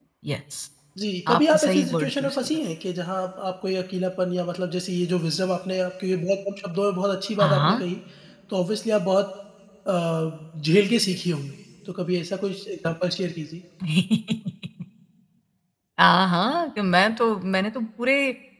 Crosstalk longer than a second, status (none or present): present